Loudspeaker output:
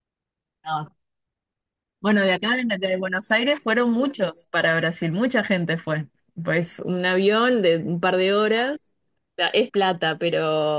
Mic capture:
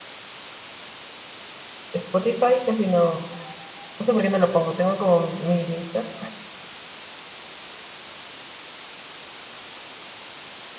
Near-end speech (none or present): present